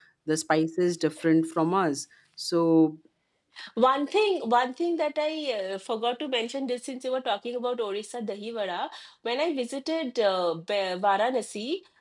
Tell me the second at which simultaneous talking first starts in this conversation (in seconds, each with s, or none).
none